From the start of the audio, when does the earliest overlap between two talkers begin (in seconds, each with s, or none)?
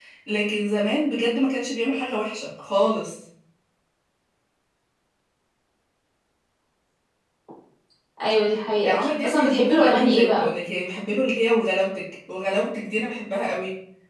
8.8 s